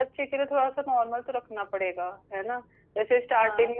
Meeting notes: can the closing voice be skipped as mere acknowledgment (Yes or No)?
Yes